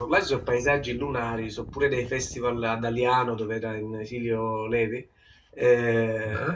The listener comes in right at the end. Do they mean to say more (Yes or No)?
No